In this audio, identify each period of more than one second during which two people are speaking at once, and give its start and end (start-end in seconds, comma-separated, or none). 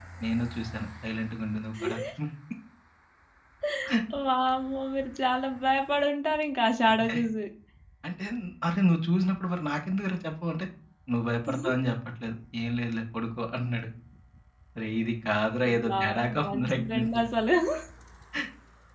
15.9-17.2